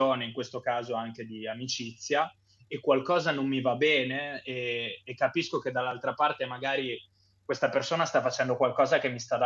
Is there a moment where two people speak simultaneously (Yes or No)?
No